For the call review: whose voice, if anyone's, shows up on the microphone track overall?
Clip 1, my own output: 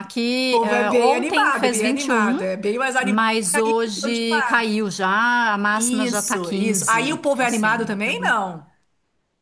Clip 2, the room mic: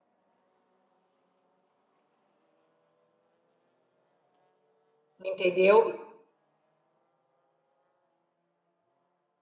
user only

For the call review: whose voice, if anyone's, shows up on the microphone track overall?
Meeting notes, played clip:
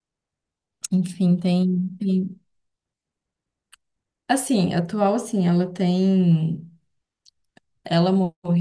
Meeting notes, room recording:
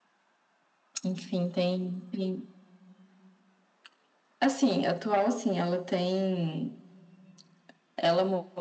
echo only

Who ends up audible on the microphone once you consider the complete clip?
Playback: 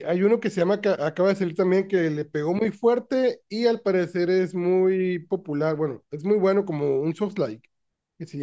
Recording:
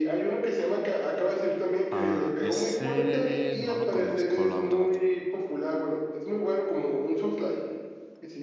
both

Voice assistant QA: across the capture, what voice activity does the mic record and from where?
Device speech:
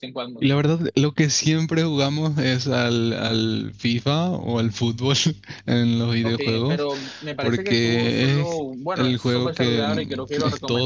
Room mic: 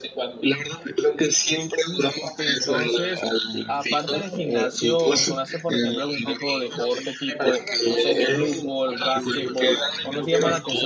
both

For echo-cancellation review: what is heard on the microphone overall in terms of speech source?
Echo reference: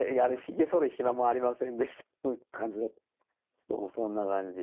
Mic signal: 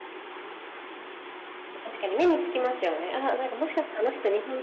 user only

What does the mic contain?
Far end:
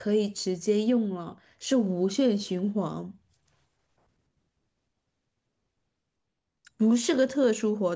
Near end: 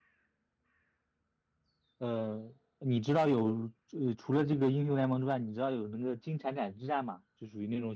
user only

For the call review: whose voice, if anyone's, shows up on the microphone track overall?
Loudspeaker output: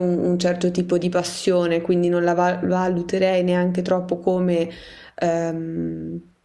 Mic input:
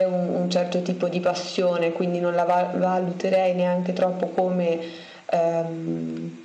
echo only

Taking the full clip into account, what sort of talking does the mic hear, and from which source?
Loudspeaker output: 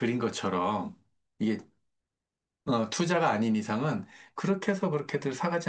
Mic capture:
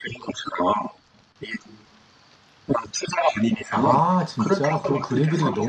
both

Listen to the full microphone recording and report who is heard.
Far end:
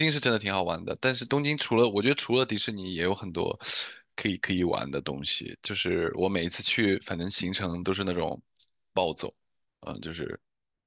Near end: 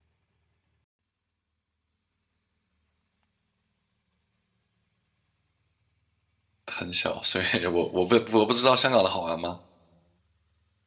user only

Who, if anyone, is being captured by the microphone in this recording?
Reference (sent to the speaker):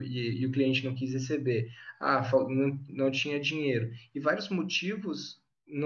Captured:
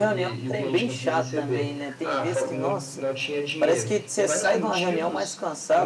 both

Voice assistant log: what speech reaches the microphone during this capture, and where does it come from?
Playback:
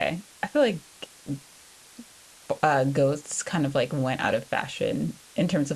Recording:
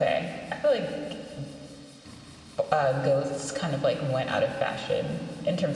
echo only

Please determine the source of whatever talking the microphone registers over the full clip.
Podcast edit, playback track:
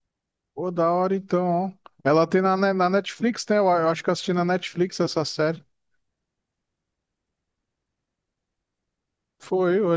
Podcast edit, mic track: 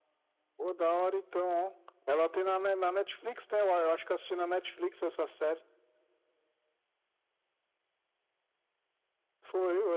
echo only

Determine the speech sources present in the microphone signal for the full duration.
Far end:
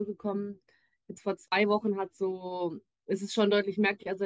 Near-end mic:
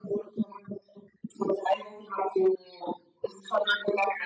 echo only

